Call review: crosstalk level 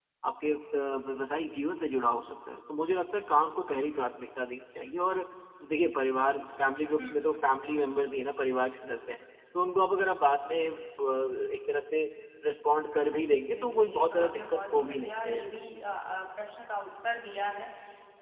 present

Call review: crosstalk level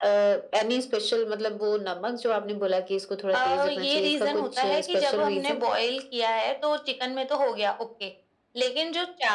present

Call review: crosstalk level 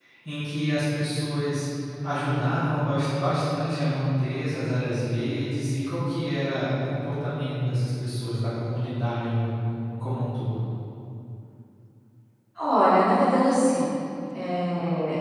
none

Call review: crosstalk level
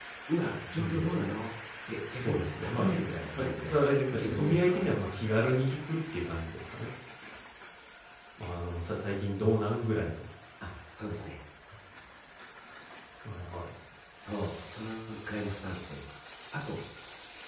present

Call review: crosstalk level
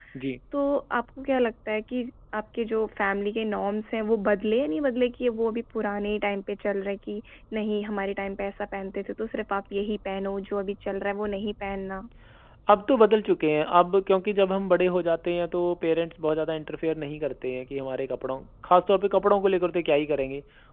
none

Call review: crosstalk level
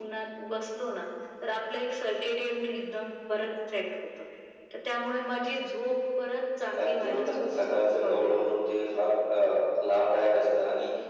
present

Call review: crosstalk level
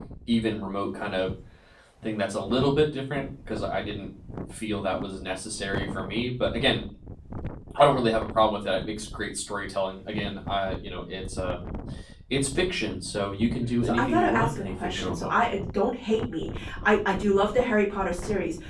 present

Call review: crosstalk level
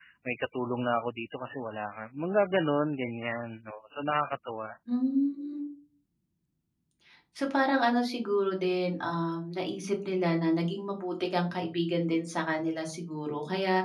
none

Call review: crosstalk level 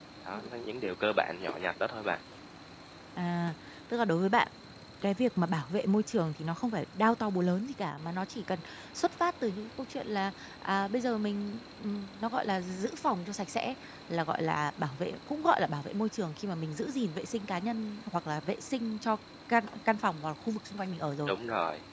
none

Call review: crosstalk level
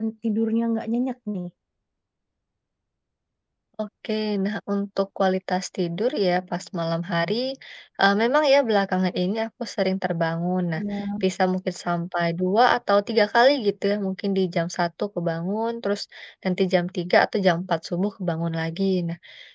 none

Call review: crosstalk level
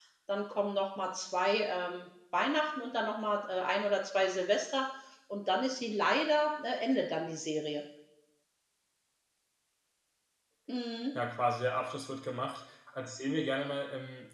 none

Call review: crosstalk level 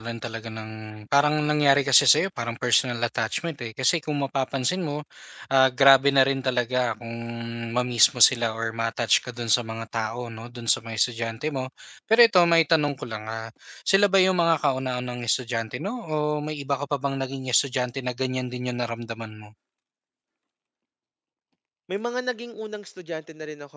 none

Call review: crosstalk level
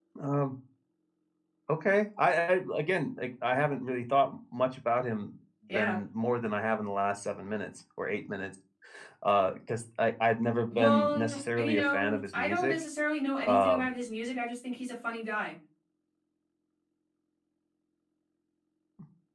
present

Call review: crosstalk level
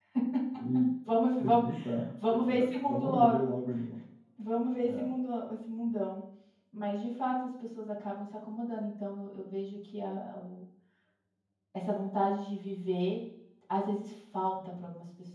present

